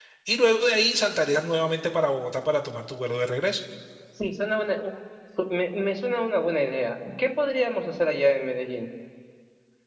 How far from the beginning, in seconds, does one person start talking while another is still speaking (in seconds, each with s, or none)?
none